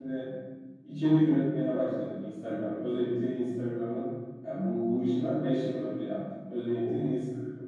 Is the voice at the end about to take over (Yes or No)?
No